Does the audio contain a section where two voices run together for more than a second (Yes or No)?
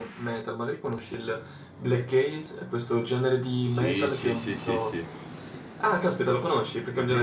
Yes